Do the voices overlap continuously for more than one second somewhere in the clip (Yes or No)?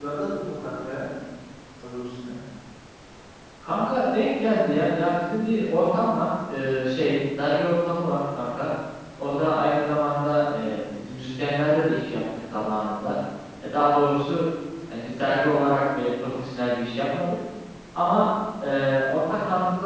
No